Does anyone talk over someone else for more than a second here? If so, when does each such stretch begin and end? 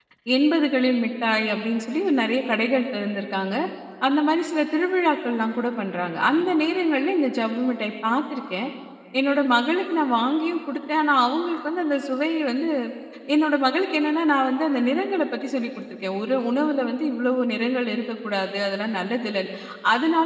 none

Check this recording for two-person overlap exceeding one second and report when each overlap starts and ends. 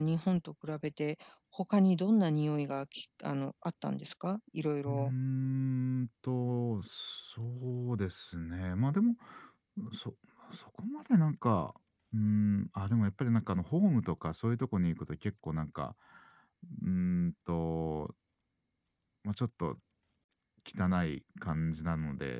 none

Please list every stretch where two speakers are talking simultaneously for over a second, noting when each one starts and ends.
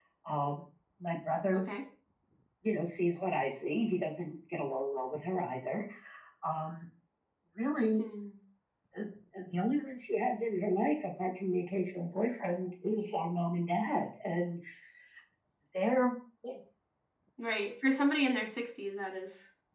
none

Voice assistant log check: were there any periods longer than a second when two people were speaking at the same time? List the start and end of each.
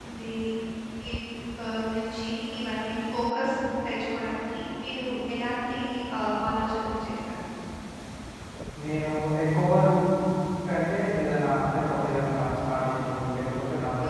none

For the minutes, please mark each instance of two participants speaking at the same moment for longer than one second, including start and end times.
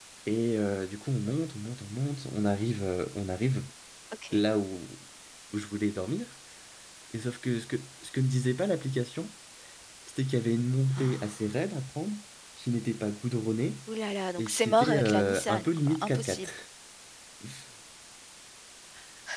14.4-16.5

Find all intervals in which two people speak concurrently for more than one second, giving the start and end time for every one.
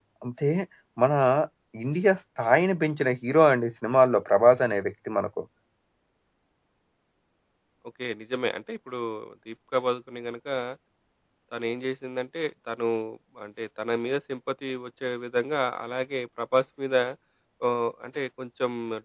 none

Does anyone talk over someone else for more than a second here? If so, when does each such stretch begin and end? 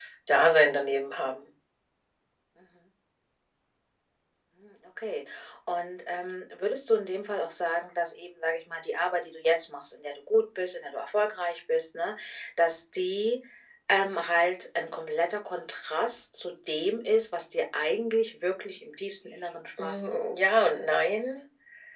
none

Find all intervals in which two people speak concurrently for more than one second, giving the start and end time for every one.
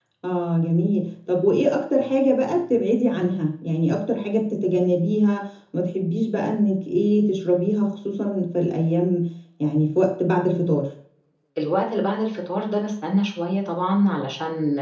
none

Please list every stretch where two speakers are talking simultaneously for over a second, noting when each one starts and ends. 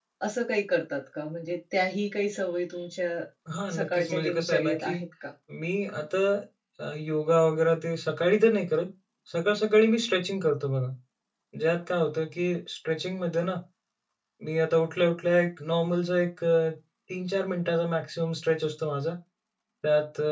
3.8-5.0

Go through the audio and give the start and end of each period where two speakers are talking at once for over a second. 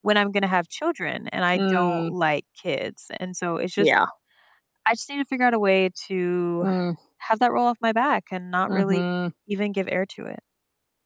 none

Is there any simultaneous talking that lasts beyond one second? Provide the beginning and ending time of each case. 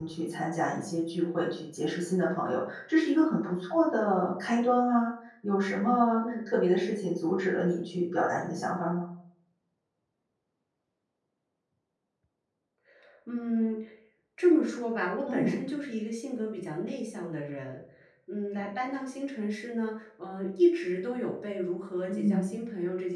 none

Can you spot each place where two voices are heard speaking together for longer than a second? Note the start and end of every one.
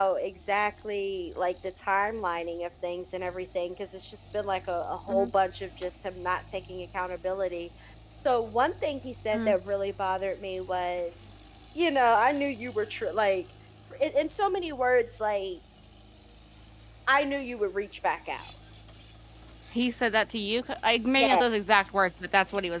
none

